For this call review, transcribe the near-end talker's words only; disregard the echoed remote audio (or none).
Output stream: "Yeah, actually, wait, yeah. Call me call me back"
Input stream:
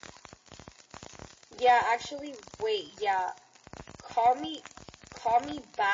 none